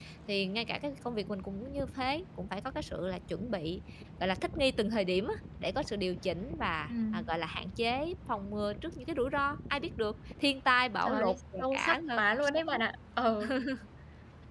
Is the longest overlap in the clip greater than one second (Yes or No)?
Yes